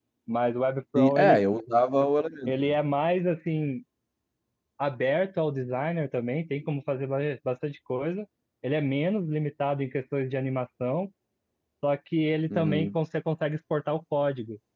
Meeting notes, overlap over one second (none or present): none